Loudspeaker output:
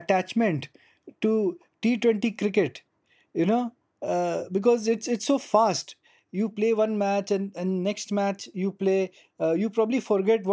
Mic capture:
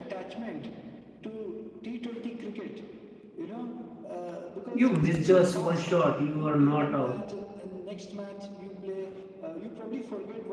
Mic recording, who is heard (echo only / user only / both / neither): both